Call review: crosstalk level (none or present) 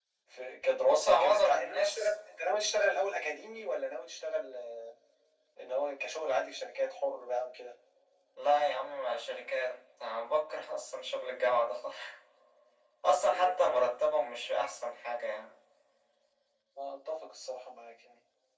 present